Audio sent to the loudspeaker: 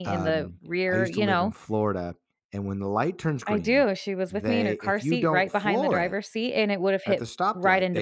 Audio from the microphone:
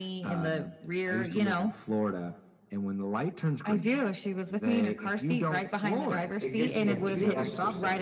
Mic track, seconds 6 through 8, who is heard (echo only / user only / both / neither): both